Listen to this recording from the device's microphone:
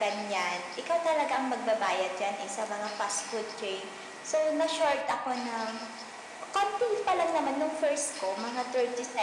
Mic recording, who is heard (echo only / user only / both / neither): echo only